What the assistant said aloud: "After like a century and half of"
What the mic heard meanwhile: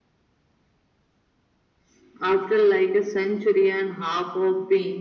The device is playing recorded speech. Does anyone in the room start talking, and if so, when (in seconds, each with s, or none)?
none